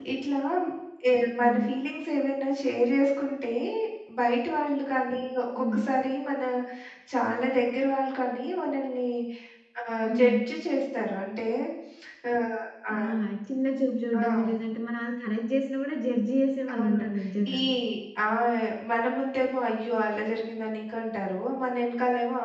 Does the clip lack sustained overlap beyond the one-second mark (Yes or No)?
Yes